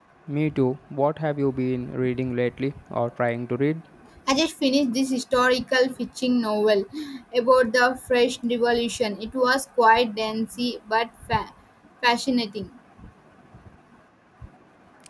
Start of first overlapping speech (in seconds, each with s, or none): none